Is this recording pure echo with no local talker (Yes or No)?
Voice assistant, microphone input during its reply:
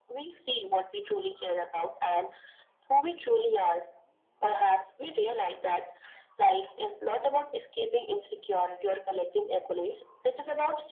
Yes